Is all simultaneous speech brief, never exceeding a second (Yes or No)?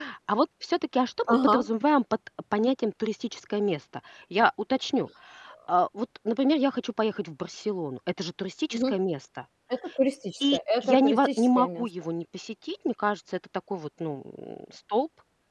No